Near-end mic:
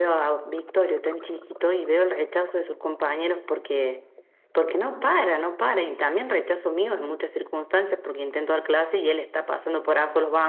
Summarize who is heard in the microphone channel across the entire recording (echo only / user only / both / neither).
echo only